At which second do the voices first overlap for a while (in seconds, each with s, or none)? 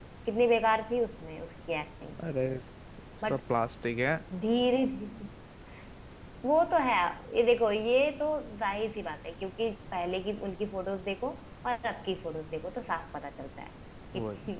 none